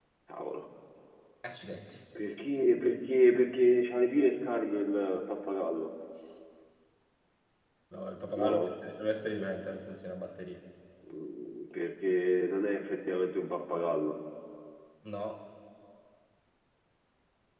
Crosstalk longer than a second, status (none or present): none